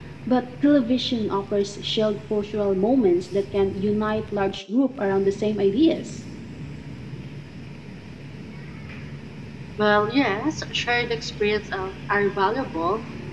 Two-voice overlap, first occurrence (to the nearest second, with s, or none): none